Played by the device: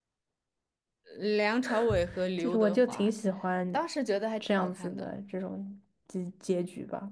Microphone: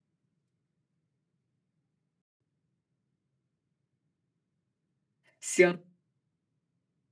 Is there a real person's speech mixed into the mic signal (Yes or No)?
Yes